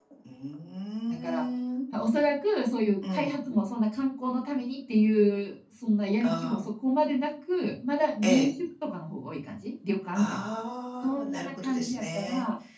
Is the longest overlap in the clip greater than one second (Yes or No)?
Yes